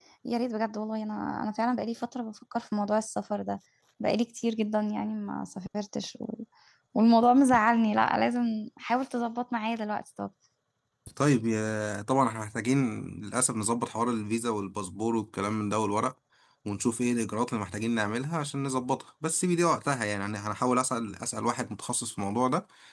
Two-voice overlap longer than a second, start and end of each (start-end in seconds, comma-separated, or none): none